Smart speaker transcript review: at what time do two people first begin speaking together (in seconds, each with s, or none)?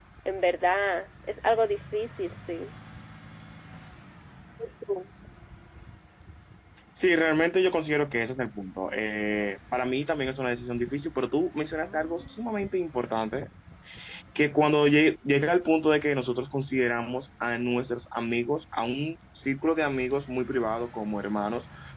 none